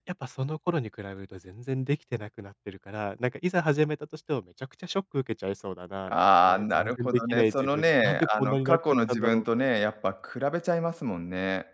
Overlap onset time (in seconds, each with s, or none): 6.1 s